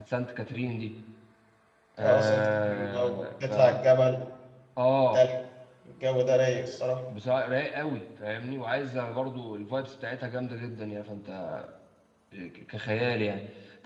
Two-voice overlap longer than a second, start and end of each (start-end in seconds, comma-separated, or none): 2.0-3.8